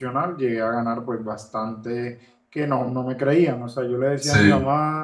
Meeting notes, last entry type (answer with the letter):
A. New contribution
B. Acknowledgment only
B